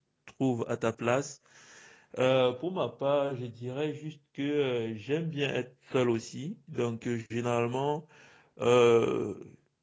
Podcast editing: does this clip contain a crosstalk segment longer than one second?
No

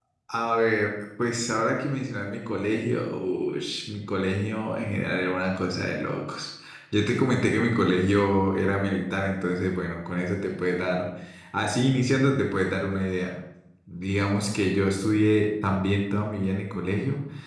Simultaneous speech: No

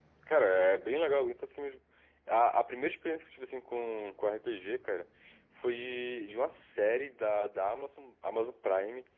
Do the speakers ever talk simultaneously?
No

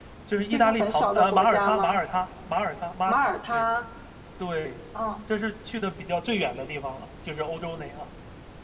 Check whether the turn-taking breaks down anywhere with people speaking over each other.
Yes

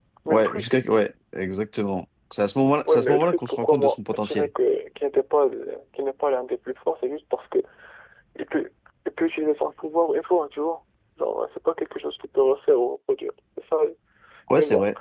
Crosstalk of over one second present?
Yes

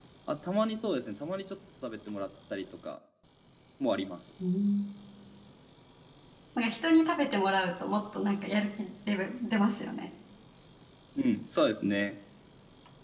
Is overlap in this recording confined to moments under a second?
Yes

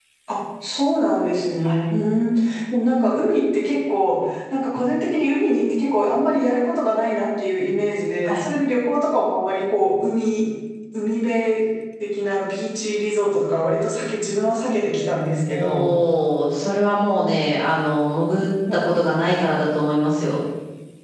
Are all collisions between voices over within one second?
Yes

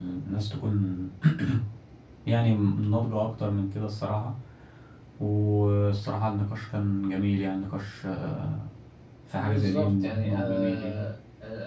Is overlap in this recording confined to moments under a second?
No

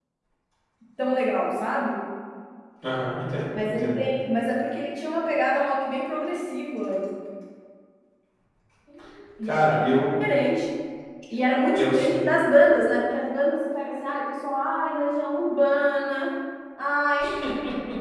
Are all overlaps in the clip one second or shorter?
Yes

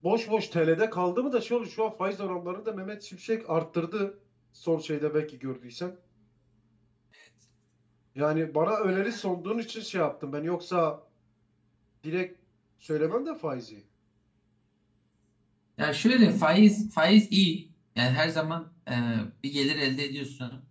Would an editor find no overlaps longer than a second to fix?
Yes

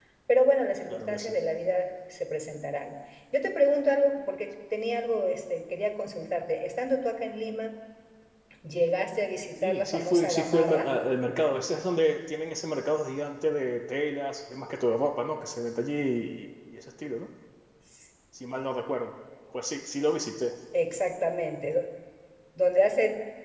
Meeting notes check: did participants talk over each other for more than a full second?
Yes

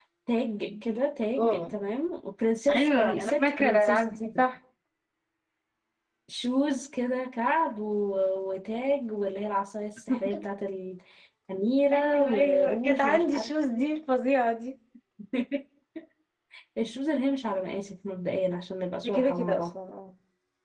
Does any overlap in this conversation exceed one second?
Yes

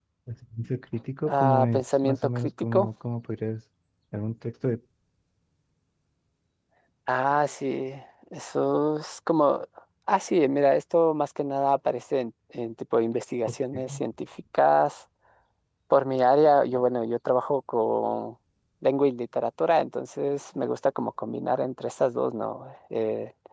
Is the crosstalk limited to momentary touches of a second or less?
No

